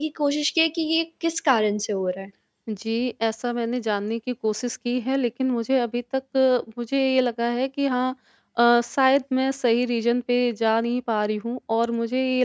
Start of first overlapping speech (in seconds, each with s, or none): none